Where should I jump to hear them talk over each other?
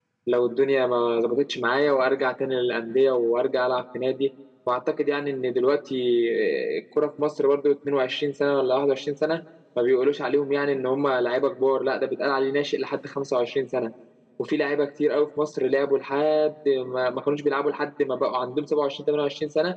none

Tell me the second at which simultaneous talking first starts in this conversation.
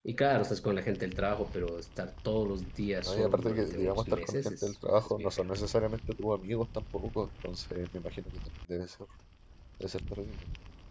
3 s

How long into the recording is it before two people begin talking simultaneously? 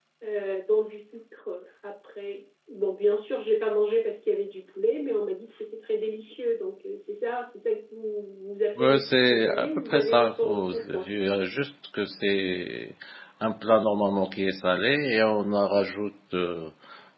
9 s

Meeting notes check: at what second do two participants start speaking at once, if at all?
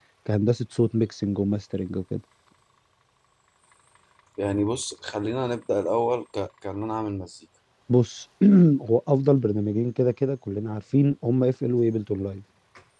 none

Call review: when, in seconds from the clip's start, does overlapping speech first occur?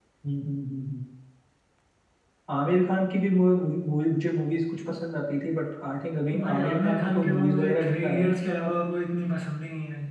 6 s

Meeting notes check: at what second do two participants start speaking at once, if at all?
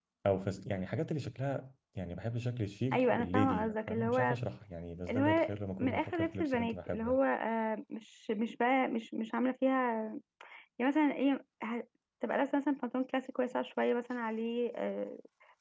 3 s

